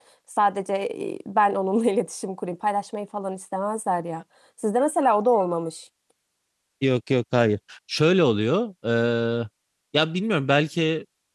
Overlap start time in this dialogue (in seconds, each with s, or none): none